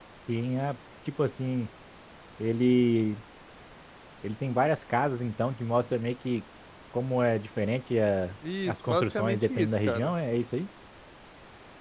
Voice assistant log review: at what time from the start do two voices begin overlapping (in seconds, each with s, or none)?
8.7 s